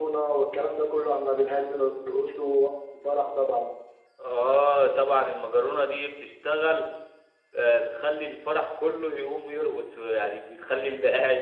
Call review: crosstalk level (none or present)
none